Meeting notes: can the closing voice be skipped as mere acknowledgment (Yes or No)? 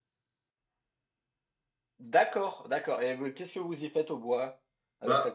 No